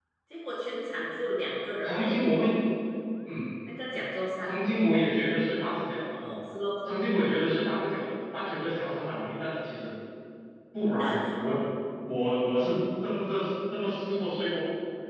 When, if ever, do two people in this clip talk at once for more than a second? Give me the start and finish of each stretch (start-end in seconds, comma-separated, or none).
none